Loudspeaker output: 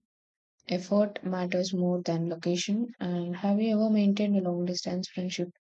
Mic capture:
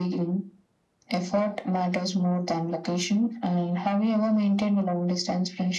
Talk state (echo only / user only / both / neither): echo only